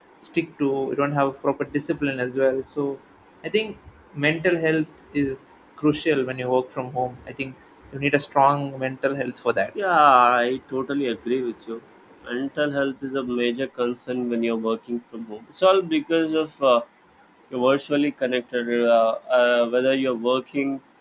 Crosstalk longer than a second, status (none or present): none